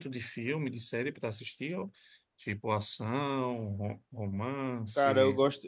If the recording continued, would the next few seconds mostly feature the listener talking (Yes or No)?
Yes